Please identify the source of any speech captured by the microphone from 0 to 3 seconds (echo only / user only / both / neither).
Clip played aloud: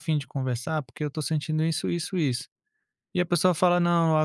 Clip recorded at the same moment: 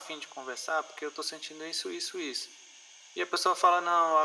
echo only